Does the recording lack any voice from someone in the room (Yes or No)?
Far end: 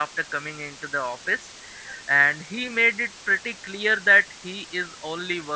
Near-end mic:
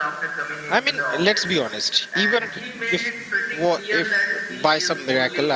No